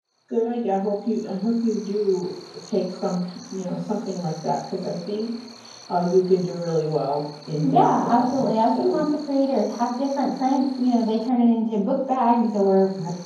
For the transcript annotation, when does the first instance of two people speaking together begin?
7.6 s

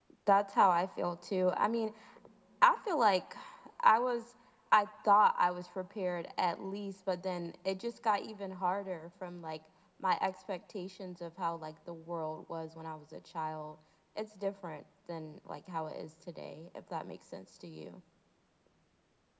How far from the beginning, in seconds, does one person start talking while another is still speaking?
none

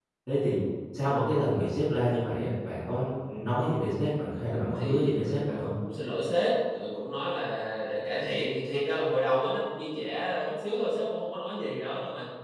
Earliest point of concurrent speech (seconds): 4.5 s

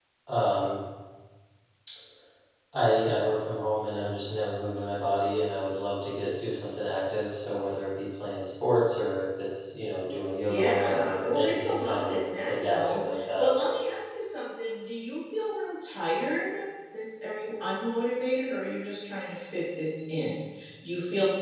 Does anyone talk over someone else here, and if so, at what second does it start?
10.5 s

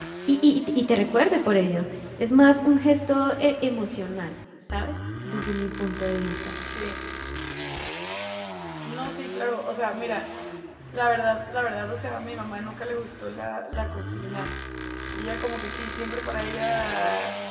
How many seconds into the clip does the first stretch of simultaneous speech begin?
none

